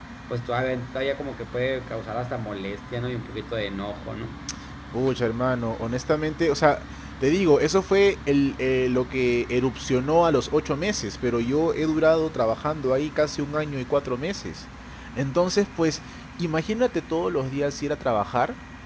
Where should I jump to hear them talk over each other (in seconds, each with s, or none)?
none